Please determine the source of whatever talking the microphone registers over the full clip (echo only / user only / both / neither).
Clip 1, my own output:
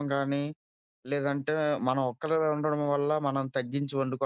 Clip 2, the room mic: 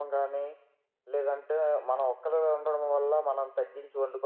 echo only